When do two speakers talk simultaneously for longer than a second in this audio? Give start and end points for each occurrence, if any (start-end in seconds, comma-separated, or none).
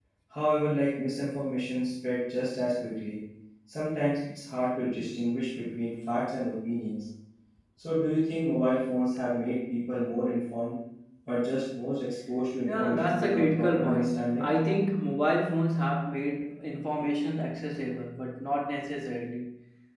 12.7-14.5